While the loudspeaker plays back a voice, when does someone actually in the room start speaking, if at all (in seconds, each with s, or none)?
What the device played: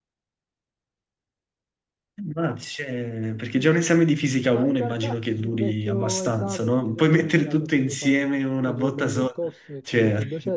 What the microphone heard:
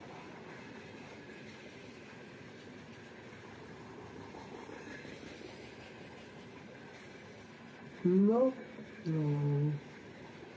8.0 s